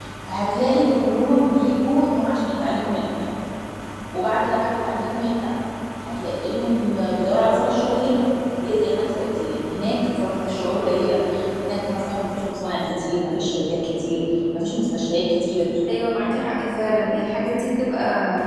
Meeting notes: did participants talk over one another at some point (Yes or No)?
No